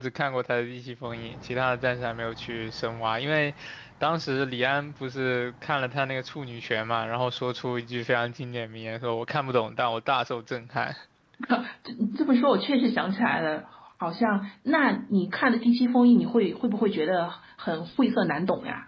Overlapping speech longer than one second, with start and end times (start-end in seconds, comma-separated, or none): none